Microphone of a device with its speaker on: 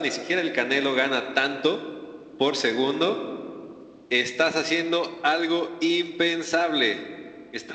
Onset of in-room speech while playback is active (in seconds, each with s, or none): none